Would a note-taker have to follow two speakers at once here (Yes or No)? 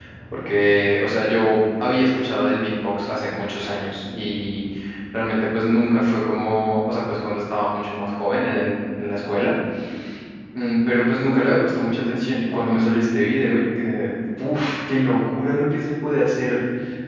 No